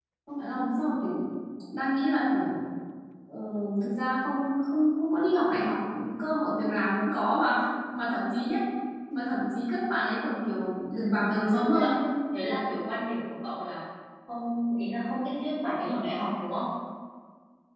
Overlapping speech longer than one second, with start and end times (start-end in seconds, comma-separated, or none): none